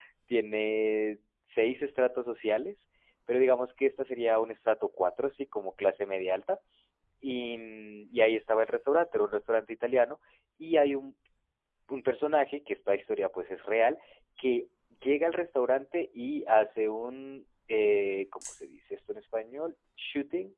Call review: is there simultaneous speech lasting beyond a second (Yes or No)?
No